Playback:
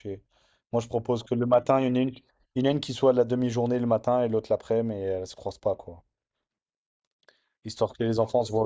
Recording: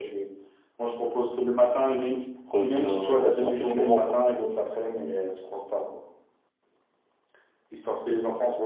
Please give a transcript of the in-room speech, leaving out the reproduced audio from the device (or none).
re- euh, revivre un peu ces moments, quoi.